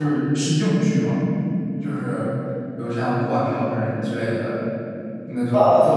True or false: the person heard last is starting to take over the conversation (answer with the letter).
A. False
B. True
A